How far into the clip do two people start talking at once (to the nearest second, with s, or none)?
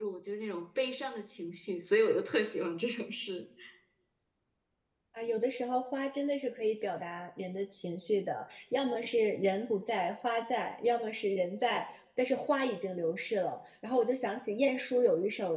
none